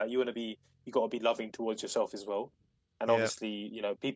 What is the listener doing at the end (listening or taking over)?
listening